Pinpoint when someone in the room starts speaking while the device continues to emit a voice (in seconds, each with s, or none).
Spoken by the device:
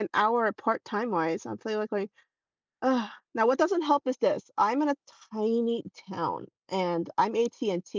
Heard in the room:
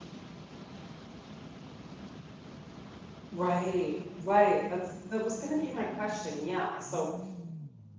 3.3 s